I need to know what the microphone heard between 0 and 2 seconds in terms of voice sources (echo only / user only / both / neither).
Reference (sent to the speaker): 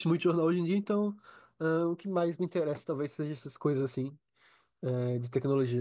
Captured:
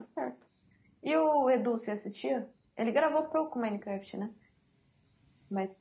user only